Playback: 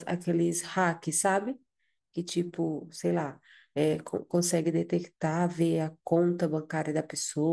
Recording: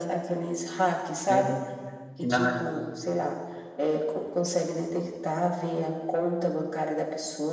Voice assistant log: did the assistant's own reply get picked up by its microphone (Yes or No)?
Yes